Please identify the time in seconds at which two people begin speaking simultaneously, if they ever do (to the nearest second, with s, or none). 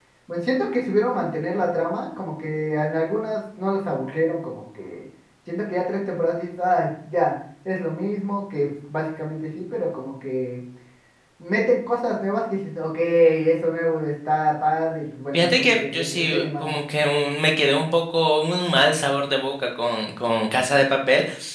15 s